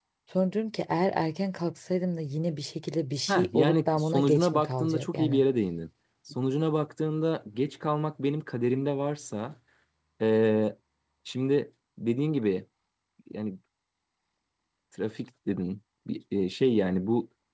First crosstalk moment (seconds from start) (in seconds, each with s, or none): 3.3 s